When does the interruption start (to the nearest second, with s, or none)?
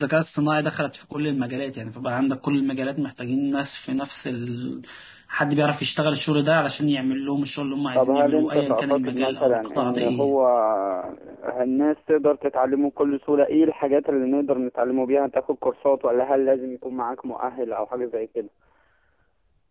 8 s